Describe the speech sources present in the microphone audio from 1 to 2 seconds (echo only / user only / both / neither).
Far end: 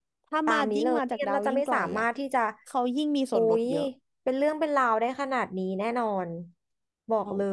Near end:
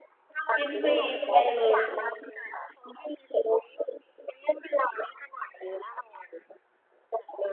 both